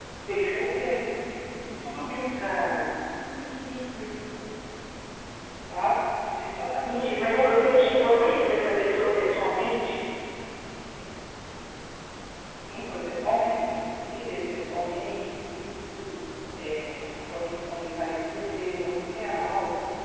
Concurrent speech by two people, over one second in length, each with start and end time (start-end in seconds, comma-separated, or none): 6.9-8.6